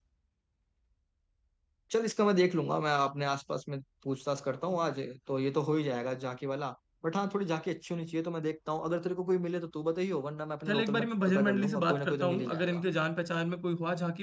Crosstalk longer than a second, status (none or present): present